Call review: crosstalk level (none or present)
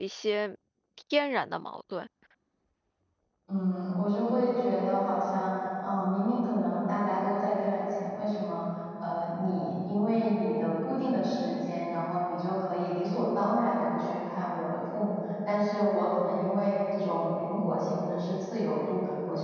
none